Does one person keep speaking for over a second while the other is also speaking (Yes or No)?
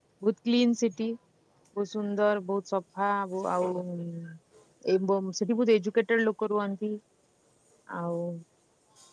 No